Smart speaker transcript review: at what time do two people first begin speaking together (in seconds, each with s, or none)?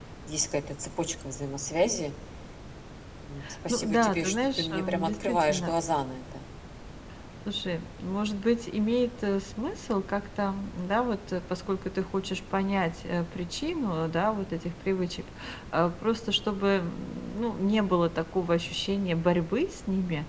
3.7 s